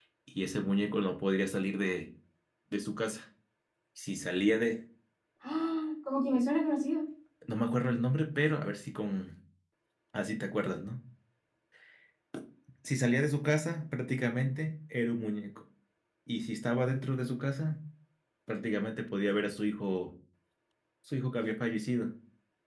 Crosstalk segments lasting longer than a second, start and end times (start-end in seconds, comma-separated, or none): none